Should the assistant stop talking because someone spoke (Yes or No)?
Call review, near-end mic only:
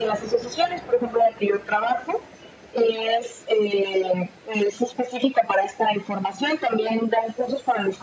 No